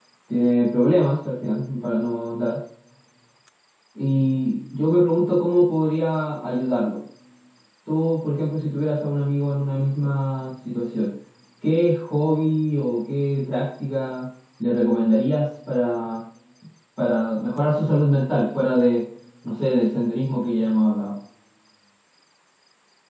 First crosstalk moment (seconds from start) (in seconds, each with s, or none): none